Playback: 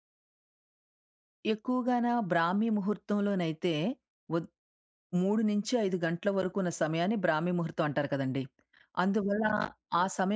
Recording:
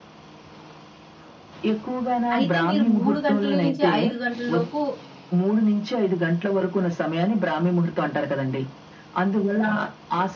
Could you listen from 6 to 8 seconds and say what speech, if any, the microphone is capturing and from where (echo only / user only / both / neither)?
echo only